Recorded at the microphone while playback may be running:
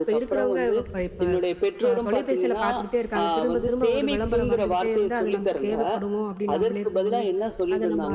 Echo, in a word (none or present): present